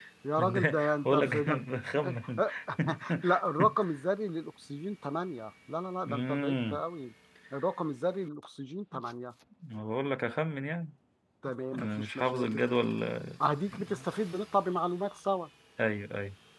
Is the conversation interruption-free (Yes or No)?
No